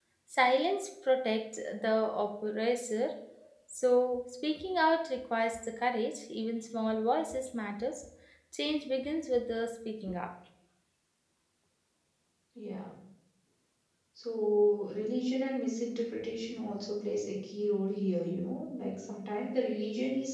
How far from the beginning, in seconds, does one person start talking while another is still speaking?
none

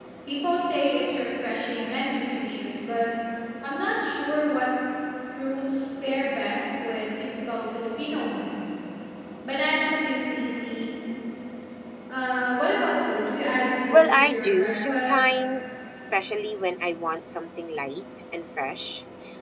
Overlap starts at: 13.9 s

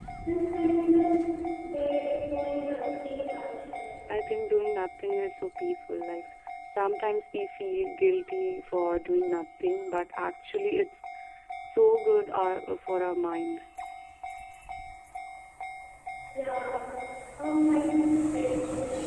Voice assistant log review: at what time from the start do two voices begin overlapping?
none

